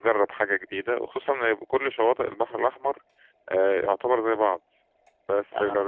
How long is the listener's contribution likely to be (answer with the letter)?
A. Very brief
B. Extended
A